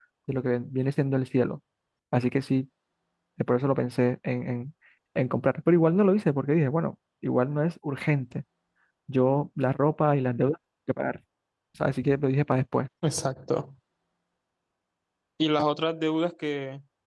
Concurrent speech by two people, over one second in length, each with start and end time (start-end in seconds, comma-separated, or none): none